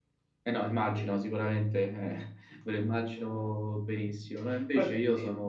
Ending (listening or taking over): listening